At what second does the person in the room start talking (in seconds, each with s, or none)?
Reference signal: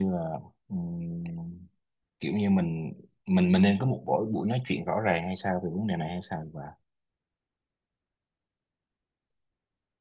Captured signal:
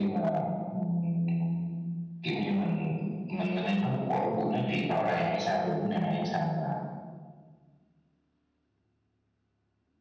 none